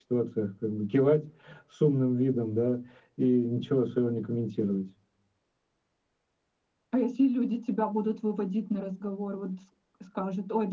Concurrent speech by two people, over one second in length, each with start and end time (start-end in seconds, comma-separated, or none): none